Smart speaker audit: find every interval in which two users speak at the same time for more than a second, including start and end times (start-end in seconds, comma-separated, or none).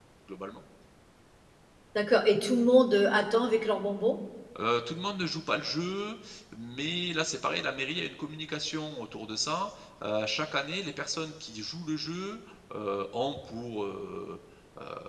none